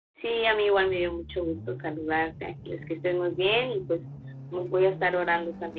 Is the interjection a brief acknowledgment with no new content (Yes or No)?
Yes